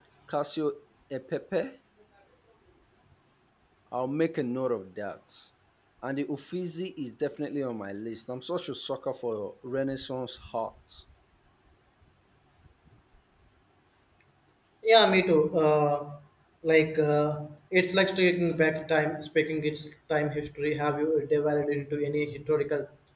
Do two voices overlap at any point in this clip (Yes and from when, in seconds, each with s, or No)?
No